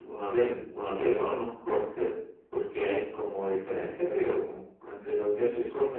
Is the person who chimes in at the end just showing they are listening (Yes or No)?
Yes